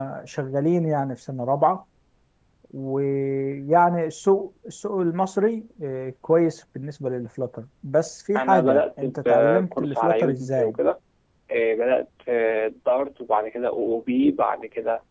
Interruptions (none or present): present